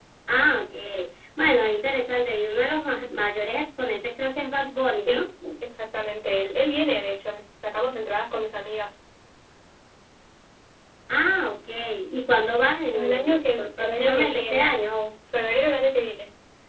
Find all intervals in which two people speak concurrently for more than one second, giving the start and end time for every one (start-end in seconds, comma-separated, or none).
12.9-14.7